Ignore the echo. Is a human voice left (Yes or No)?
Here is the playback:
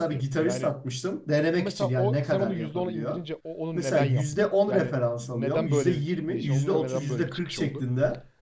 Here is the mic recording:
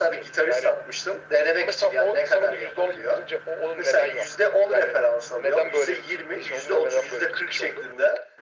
No